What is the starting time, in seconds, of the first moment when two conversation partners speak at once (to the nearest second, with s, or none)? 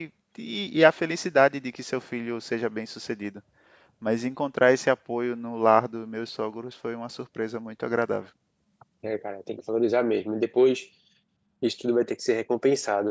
none